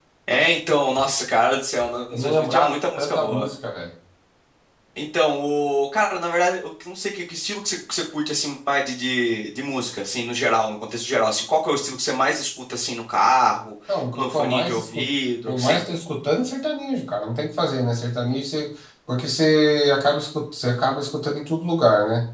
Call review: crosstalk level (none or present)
present